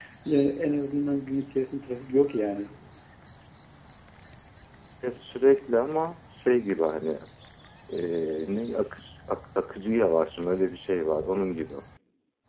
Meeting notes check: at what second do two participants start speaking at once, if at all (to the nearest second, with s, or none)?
none